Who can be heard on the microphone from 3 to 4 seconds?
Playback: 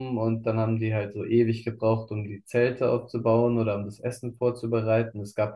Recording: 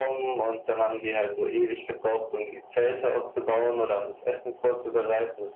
echo only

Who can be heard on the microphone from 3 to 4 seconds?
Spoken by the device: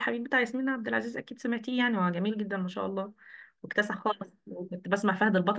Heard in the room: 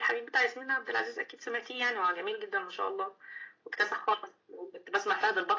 echo only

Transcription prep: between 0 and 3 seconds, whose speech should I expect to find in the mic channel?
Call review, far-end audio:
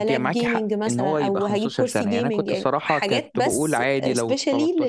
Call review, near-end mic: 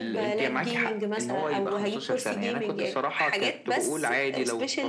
echo only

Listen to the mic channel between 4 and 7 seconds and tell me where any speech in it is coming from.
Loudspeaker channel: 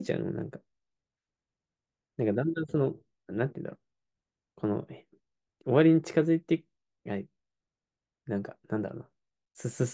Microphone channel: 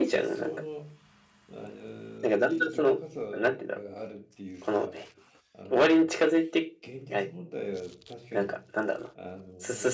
both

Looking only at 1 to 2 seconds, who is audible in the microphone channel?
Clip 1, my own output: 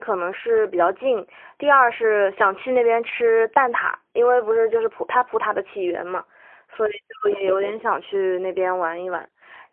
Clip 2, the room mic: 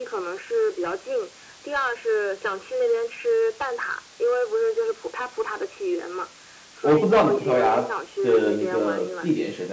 echo only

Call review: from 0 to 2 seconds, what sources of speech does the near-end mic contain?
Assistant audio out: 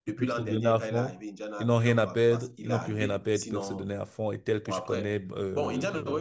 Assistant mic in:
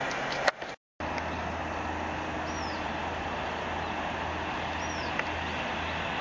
neither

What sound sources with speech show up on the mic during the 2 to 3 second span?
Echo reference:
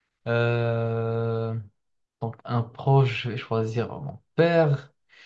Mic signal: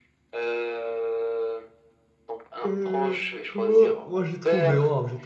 both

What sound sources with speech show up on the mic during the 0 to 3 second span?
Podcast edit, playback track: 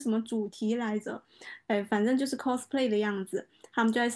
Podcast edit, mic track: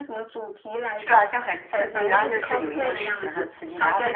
both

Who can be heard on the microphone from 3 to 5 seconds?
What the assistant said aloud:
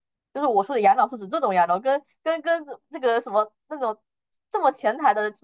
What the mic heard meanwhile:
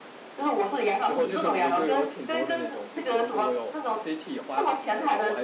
both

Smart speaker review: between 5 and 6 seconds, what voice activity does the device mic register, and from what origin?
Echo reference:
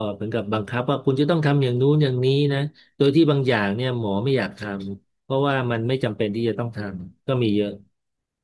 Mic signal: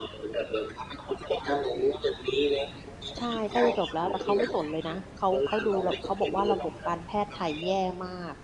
both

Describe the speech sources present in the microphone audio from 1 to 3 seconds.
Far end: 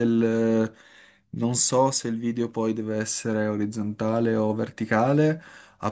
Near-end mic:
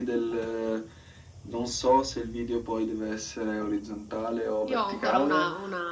echo only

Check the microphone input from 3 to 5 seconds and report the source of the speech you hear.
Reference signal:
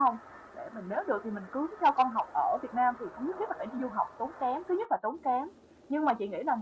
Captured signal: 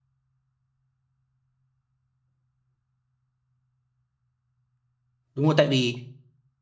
neither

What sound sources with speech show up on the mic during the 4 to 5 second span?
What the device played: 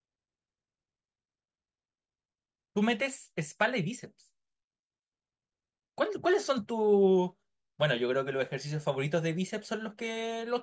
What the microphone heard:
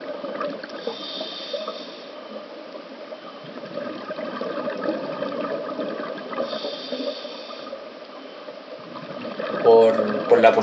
neither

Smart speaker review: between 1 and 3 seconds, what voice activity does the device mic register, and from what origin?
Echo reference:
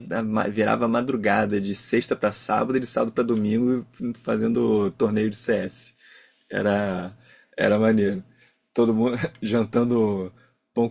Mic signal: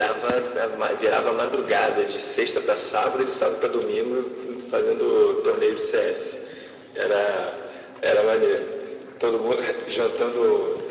echo only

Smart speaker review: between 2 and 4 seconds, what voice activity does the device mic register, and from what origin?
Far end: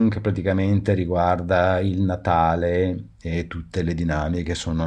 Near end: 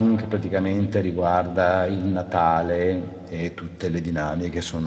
echo only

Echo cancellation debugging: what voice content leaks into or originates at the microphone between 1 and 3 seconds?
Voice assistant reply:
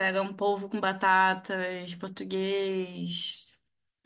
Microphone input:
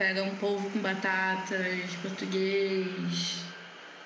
echo only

